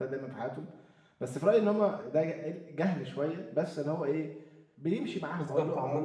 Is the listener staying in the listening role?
No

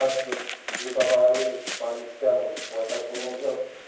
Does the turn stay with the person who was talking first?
No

